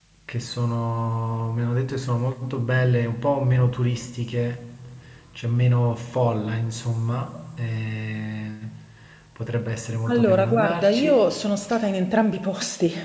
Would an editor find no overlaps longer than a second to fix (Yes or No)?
No